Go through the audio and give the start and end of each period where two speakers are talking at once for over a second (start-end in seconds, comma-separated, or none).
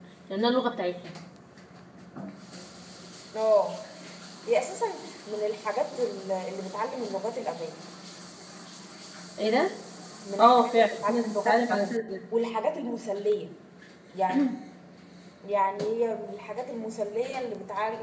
10.4-12.0